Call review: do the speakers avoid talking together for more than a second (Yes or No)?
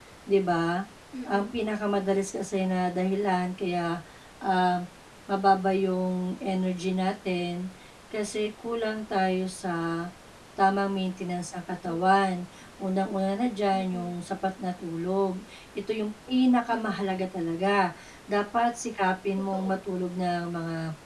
Yes